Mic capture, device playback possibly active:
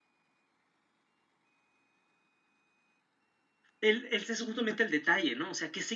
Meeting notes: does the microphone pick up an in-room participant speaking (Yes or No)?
Yes